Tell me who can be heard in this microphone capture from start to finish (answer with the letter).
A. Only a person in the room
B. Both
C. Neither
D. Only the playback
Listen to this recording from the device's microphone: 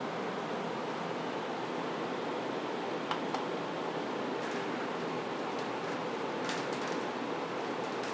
C